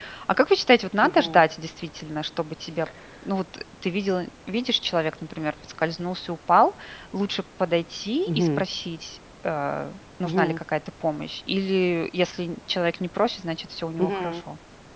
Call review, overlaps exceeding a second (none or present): none